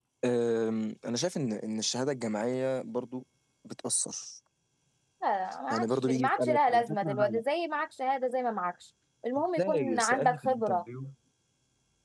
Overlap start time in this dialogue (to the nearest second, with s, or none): 6 s